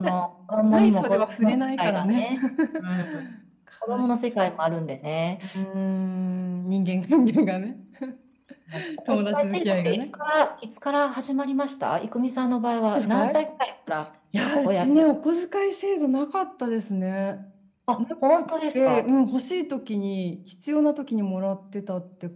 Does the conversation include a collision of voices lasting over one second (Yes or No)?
Yes